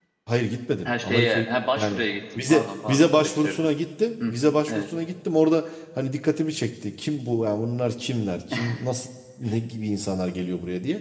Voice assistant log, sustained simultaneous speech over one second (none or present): present